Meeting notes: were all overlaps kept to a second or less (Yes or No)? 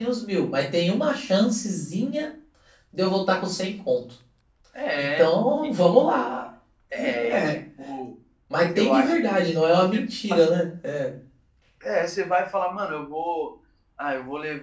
No